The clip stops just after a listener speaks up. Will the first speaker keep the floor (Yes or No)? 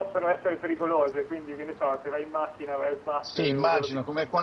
No